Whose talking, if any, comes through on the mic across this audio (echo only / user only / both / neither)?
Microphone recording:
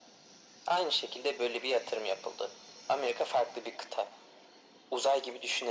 echo only